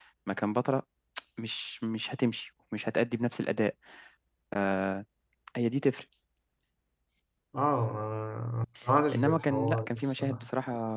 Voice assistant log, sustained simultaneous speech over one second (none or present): present